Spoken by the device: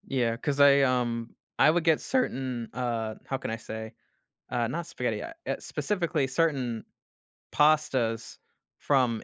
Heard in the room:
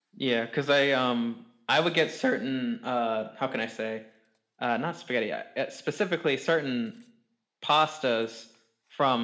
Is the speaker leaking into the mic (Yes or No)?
Yes